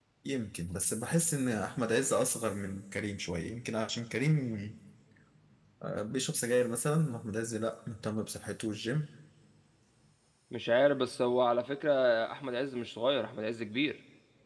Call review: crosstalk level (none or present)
none